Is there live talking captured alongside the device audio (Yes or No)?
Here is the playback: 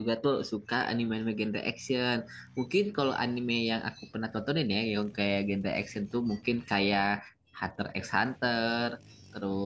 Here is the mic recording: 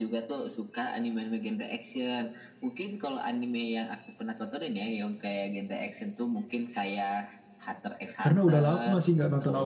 Yes